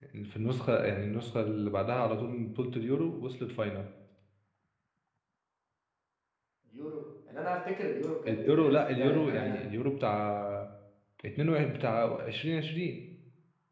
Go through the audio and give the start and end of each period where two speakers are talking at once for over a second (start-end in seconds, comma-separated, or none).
8.3-9.6